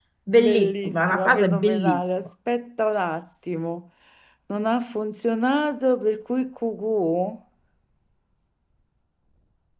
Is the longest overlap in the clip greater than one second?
Yes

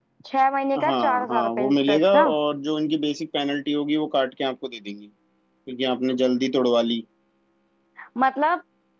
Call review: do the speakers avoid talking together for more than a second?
No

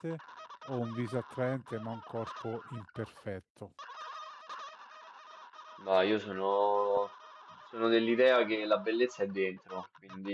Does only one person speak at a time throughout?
Yes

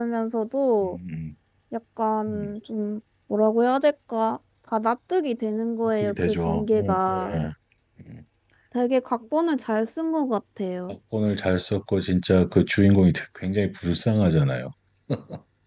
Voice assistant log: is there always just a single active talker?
No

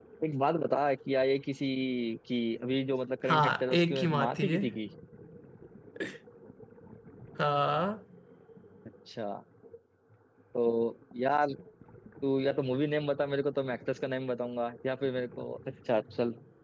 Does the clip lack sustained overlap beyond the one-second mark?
No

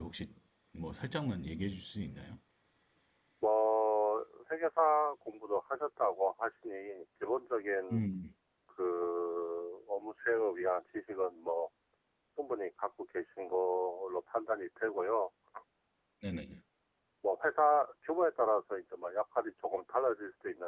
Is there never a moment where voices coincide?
Yes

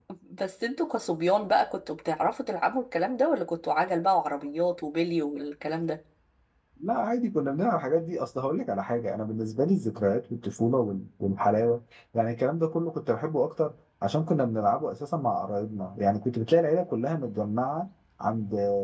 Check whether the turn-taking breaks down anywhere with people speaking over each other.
No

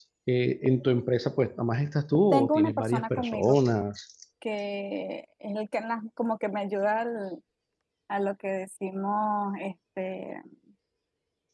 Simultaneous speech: Yes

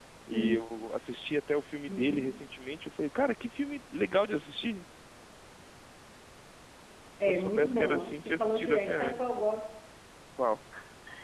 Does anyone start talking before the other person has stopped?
Yes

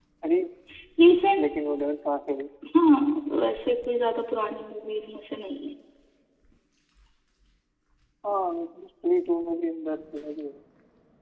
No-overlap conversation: Yes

